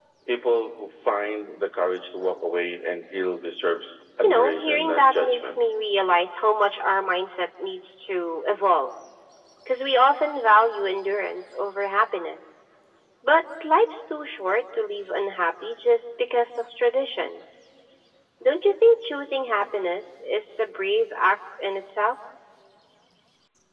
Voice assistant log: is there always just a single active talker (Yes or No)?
No